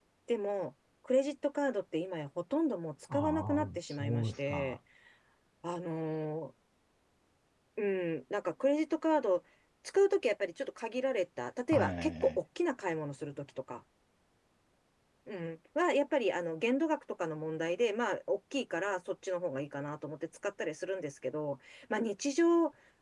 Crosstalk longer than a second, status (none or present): present